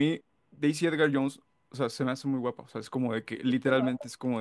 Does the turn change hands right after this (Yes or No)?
No